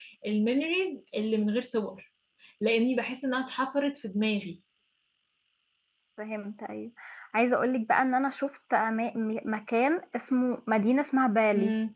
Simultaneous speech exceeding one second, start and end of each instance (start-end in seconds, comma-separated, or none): none